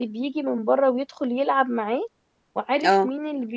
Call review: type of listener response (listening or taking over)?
listening